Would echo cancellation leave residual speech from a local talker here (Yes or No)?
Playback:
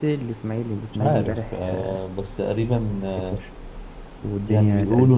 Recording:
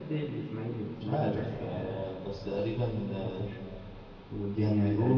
No